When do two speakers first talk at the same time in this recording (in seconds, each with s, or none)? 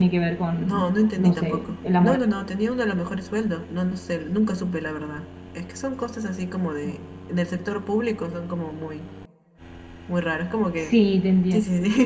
0.6 s